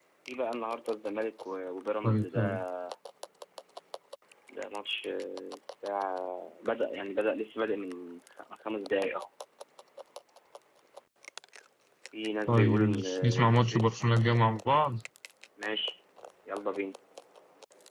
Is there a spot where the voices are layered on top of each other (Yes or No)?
Yes